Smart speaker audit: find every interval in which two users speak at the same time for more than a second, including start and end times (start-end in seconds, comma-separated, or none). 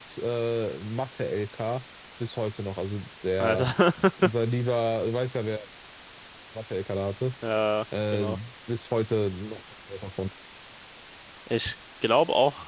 none